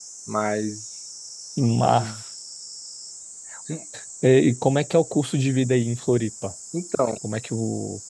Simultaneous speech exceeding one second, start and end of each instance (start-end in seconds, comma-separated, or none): none